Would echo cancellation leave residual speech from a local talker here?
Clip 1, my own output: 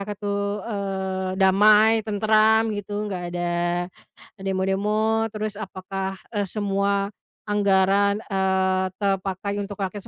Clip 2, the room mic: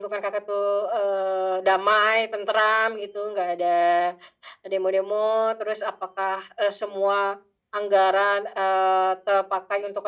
No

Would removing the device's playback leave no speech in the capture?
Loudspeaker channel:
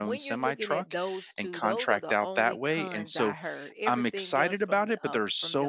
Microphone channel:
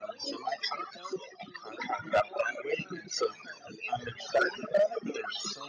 Yes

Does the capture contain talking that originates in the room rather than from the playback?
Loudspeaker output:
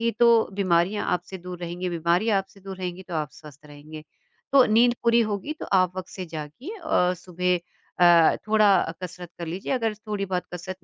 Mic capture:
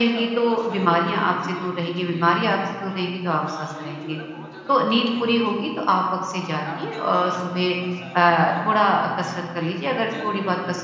Yes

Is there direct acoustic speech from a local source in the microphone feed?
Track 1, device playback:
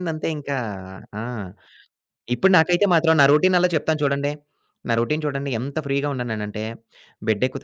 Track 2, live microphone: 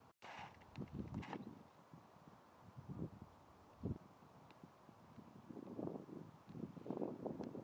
No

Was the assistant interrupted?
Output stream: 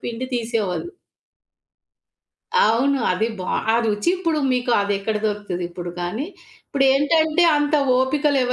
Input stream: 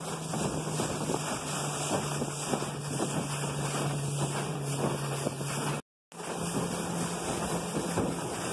No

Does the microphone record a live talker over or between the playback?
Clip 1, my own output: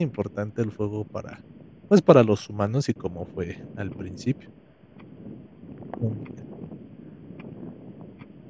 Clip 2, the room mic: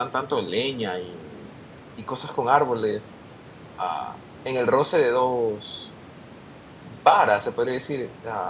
Yes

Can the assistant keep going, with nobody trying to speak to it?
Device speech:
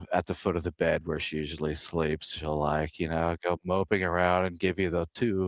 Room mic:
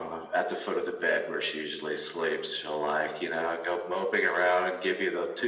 Yes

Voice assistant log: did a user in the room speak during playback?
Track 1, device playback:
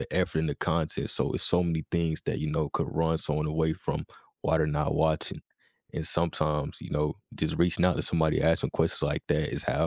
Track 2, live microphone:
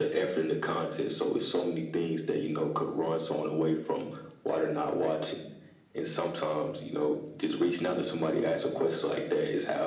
No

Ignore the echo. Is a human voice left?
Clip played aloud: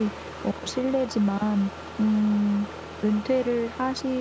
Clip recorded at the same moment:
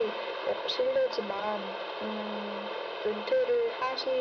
No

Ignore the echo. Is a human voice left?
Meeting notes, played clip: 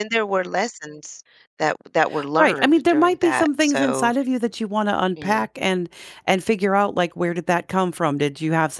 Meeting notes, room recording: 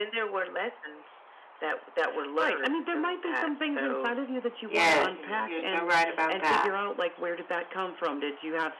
Yes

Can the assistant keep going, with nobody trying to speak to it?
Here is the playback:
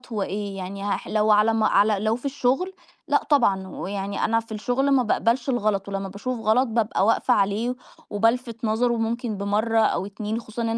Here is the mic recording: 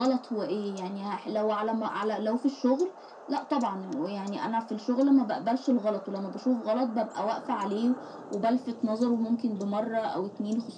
Yes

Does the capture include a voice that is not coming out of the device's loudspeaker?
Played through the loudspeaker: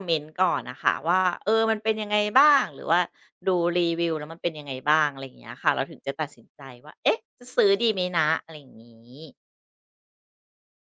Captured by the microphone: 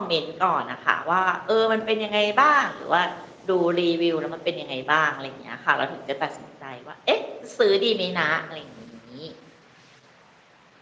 No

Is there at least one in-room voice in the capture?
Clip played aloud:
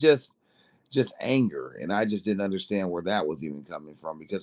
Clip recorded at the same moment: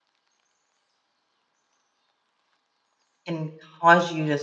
Yes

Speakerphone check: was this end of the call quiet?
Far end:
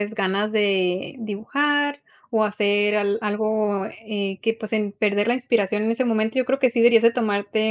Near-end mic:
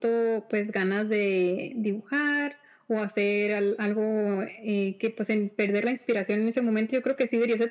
Yes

